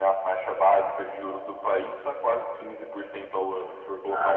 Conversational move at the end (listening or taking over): taking over